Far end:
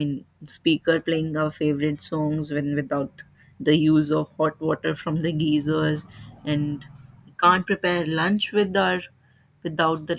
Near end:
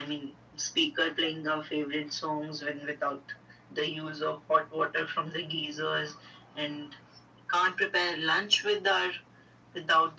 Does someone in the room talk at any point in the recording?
No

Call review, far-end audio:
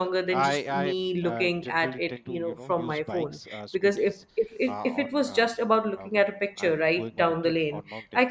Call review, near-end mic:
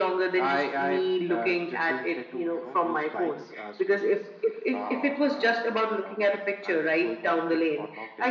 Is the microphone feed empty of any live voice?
Yes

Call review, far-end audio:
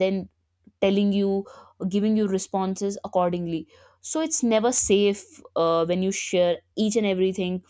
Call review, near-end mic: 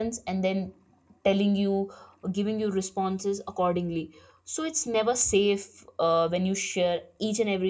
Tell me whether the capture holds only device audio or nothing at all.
Yes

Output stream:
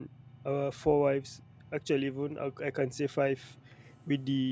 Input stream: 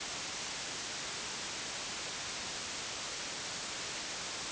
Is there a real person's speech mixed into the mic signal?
No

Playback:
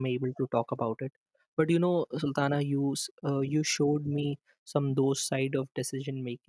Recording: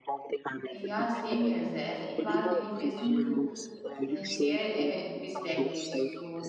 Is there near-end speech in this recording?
Yes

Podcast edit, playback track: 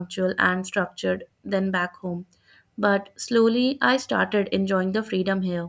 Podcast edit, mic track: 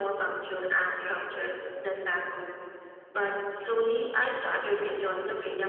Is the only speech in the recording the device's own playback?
Yes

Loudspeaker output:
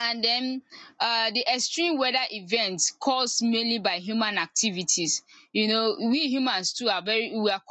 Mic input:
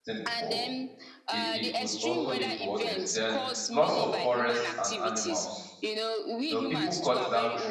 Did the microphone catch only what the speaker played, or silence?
No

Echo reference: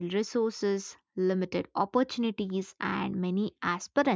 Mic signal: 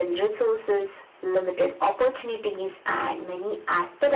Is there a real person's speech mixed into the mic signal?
No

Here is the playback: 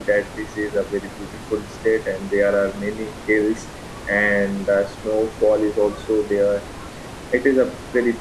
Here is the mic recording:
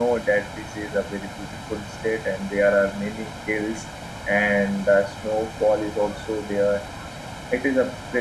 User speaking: No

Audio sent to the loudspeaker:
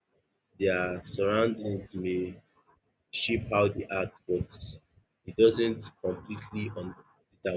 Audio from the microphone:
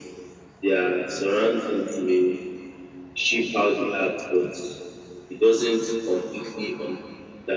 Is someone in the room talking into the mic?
No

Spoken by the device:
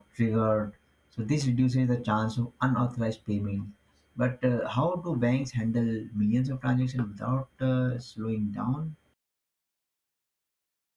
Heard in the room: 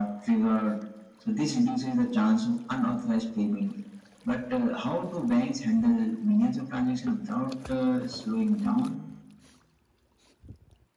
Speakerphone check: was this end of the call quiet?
Yes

